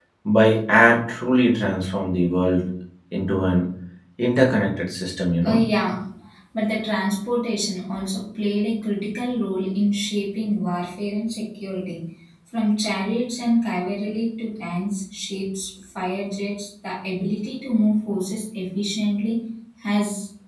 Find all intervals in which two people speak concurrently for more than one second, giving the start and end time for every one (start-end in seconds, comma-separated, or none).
none